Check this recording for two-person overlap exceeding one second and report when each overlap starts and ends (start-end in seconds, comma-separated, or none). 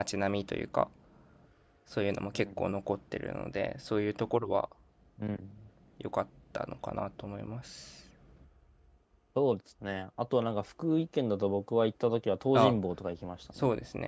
none